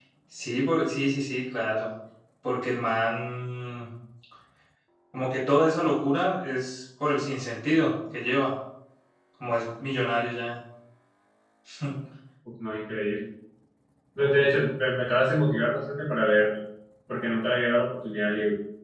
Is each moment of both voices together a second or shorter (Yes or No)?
Yes